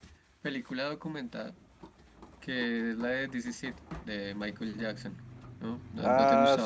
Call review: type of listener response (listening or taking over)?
taking over